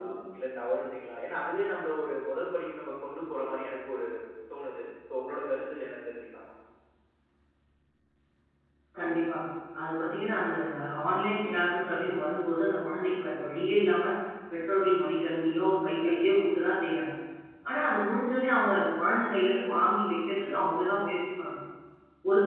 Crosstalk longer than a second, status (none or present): none